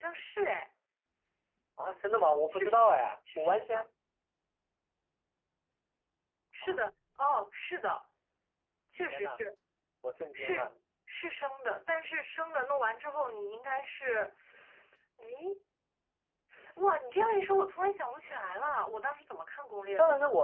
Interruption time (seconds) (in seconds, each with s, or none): 2.5 s